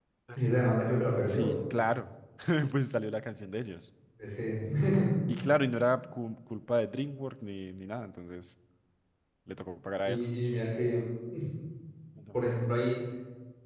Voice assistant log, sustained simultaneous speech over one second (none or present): none